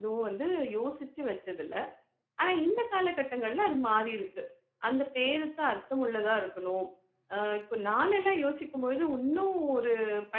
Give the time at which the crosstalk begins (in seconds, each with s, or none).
none